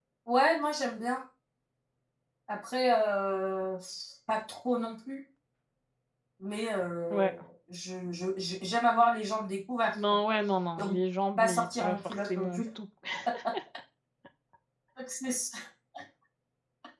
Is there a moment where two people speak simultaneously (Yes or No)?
Yes